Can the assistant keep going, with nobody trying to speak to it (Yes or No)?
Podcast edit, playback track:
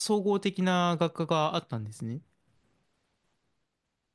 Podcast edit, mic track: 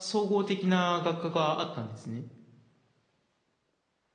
Yes